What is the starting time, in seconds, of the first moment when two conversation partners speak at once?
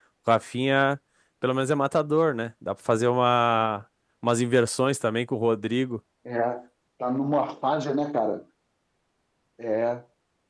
none

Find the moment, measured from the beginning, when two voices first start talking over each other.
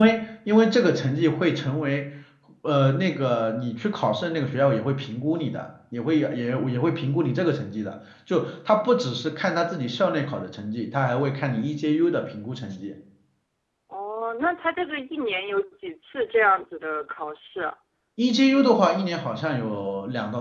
none

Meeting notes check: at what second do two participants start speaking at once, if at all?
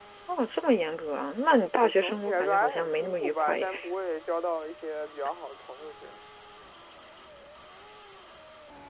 1.8 s

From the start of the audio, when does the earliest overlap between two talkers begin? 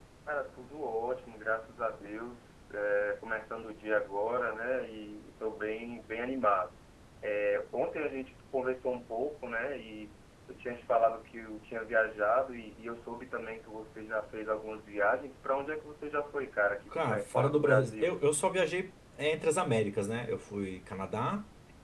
16.9 s

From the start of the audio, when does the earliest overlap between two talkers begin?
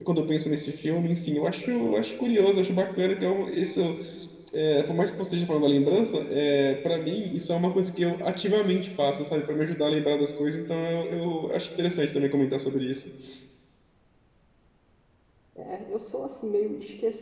none

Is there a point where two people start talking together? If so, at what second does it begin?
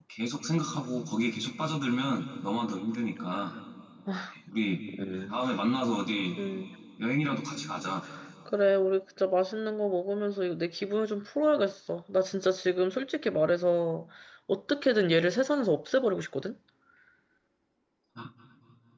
none

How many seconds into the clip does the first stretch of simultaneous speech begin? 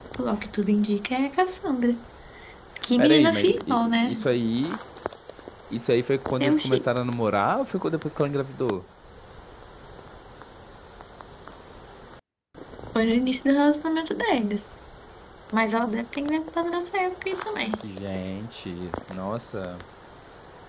3.0 s

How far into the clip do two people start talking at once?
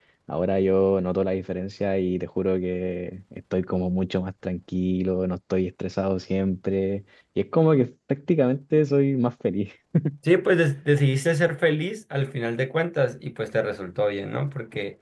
none

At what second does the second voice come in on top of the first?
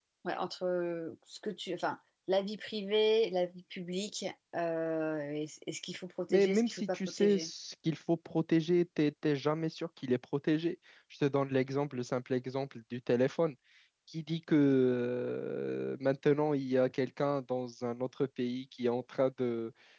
6.3 s

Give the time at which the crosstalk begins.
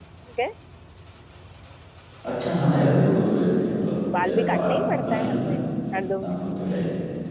4.2 s

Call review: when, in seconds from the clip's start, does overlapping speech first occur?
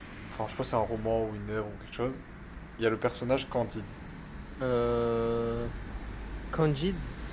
none

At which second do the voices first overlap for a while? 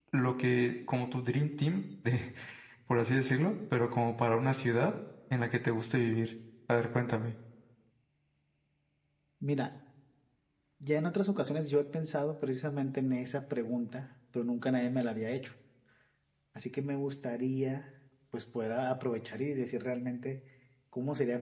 none

